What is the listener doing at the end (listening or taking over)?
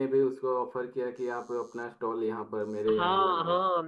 taking over